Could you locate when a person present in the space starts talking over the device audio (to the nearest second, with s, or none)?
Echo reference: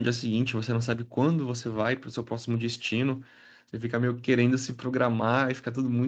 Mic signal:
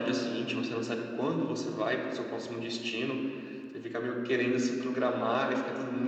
none